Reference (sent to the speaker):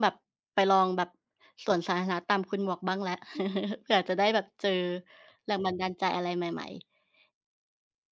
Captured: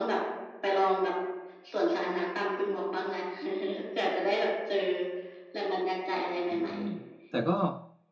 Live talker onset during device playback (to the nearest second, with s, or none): 6 s